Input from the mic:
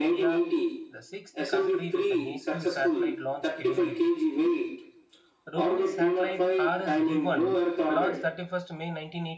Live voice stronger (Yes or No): No